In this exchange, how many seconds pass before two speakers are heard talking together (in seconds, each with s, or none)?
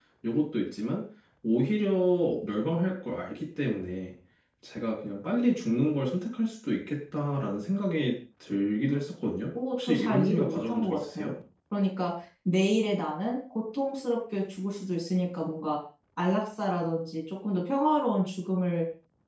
9.6 s